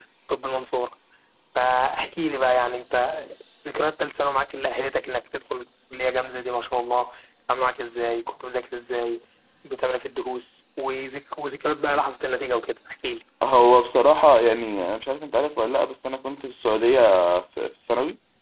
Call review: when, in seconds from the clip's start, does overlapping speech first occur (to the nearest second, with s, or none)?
none